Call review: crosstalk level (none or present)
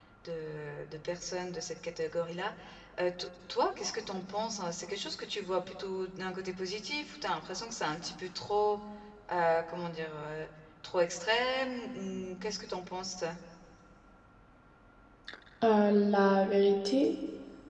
none